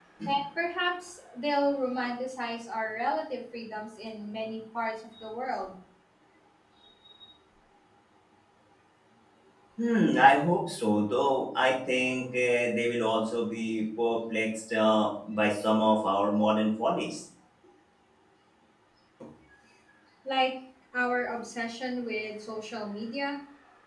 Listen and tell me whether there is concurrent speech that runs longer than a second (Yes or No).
No